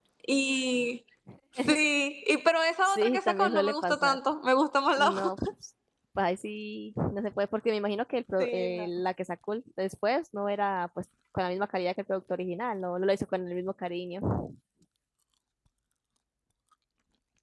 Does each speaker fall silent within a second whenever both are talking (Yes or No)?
No